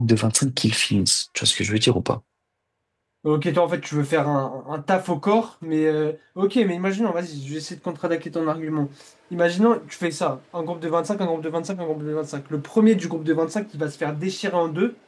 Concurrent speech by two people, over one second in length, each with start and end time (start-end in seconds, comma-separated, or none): none